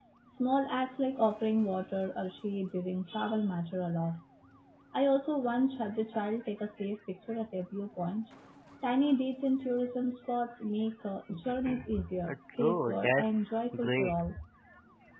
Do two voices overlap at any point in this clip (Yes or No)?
Yes